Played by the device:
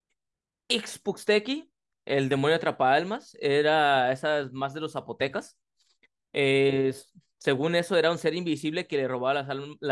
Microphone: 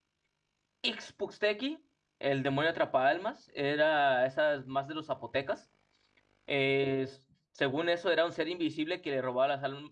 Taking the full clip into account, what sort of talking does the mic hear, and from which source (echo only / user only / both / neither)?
echo only